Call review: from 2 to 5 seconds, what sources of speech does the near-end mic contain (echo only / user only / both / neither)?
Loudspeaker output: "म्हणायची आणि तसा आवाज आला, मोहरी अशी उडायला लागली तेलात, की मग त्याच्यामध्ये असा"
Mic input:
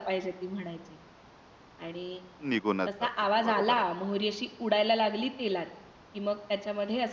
both